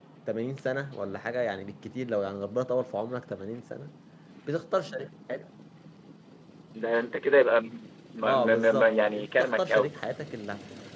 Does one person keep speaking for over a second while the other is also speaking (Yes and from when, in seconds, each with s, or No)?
Yes, from 8.2 s